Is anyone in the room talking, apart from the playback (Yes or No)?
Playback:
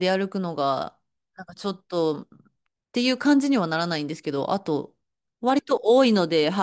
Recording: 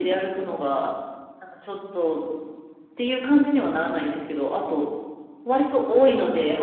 No